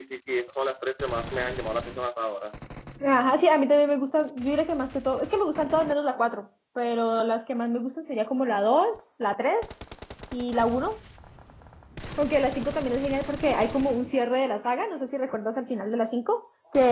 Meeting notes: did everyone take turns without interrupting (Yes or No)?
Yes